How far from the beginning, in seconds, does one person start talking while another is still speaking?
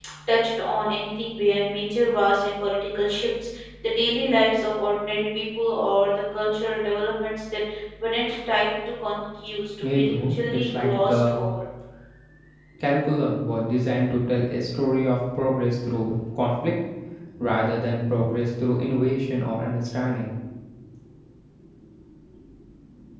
10 s

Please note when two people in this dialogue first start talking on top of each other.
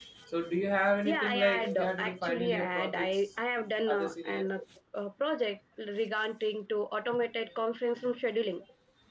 1 s

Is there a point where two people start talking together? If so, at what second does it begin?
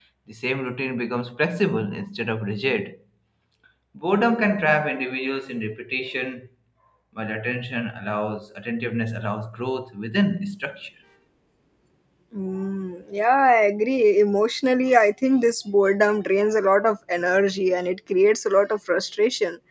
none

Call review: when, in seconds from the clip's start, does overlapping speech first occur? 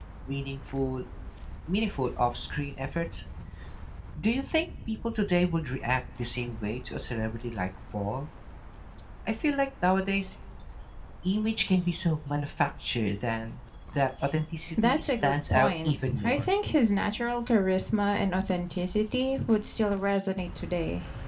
15 s

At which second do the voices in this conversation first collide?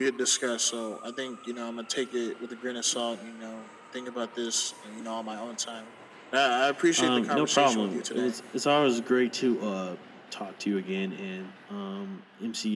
7 s

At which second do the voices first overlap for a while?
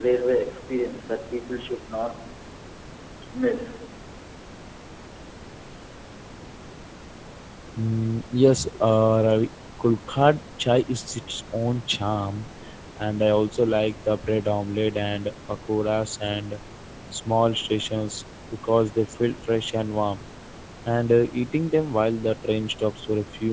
none

